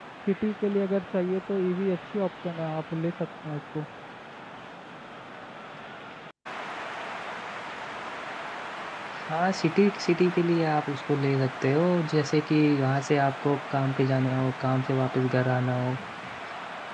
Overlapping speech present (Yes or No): No